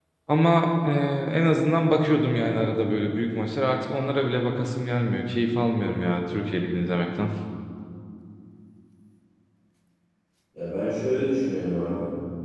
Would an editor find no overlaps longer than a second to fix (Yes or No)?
Yes